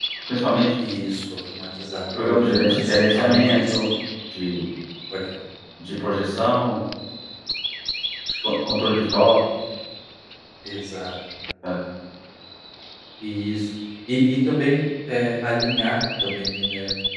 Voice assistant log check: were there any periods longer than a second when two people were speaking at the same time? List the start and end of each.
2.1-3.8

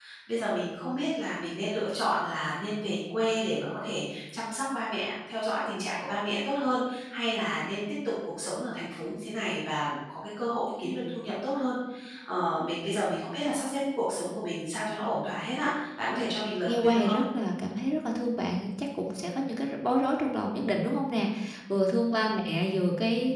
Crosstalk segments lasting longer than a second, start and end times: none

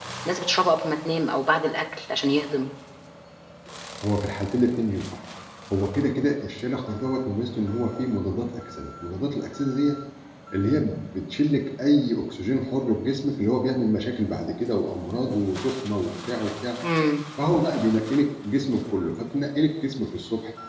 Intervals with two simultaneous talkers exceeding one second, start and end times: none

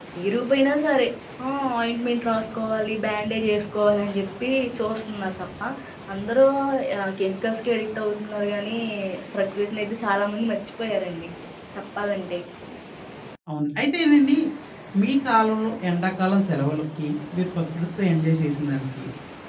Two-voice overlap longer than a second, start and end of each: none

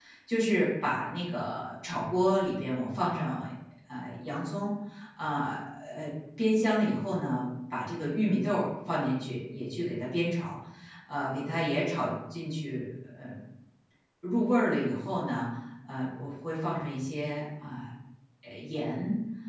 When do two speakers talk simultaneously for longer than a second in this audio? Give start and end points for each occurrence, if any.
none

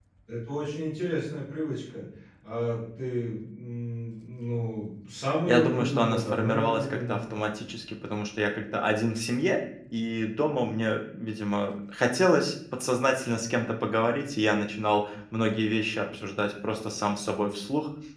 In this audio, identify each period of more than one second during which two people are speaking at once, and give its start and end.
5.5-7.2

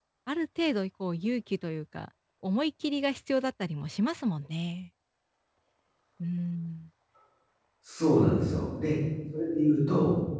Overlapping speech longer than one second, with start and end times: none

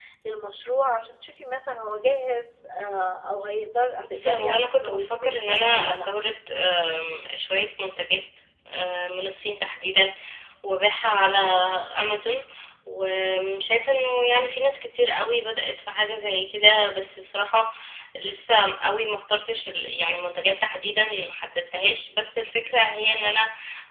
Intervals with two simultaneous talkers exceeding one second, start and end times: 4.1-6.1

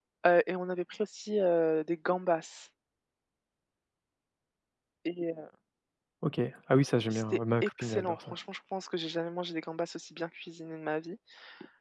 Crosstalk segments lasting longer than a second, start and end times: 7.1-8.4

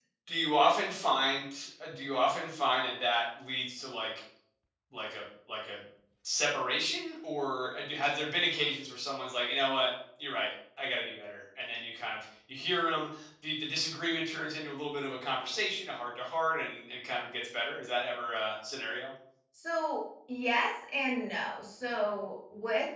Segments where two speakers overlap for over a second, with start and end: none

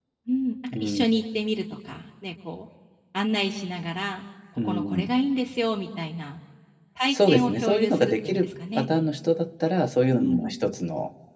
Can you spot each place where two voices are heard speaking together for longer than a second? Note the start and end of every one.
7.1-8.9

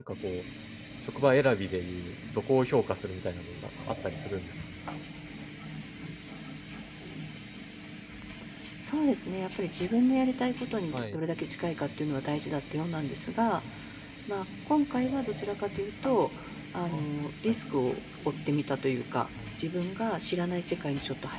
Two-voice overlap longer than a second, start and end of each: none

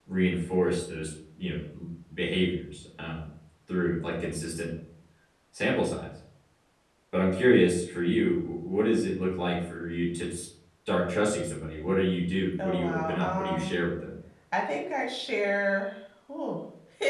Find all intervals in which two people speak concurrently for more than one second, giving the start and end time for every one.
12.6-13.8

